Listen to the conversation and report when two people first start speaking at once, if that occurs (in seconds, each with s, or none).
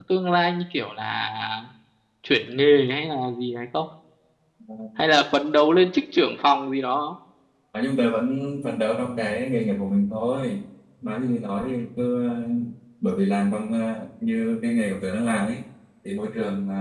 none